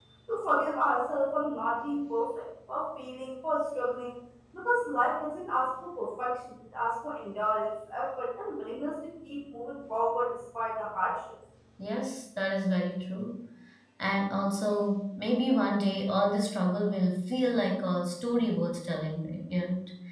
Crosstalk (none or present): none